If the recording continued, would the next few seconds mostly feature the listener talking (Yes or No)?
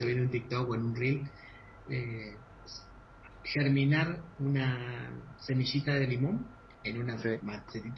No